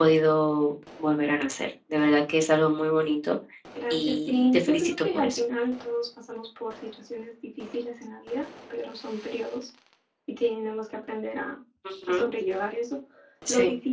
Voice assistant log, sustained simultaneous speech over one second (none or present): present